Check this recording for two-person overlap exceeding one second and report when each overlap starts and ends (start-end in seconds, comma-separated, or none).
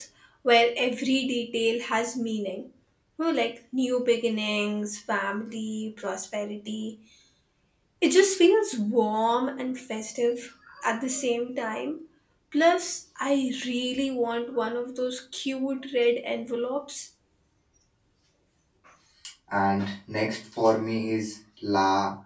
none